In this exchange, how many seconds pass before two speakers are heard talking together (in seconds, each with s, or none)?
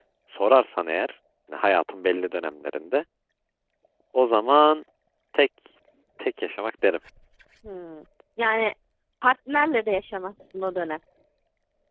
none